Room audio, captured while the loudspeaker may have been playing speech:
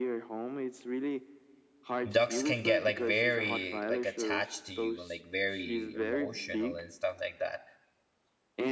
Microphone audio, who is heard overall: both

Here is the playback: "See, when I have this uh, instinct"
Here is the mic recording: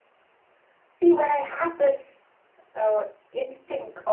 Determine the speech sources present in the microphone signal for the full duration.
echo only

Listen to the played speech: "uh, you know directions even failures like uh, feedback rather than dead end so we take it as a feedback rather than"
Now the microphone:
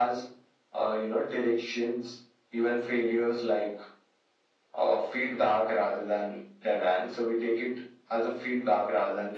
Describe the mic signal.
echo only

